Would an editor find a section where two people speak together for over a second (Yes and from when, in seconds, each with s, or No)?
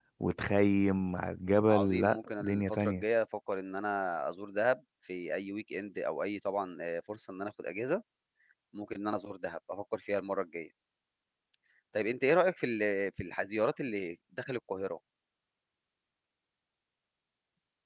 Yes, from 1.7 s